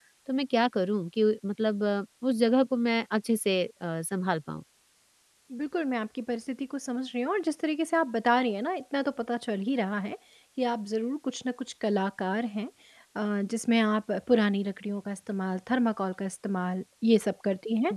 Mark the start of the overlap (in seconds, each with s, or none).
none